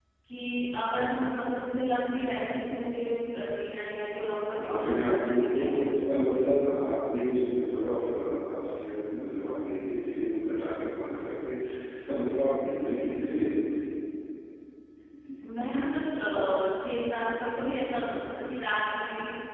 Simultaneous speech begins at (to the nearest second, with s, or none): 5 s